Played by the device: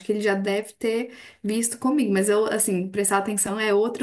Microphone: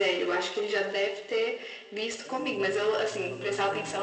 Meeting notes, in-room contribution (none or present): present